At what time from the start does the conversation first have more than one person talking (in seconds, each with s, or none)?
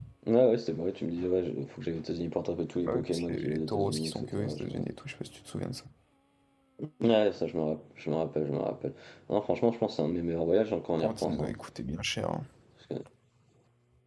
2.8 s